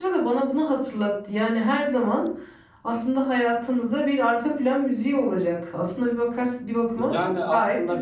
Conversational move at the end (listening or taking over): taking over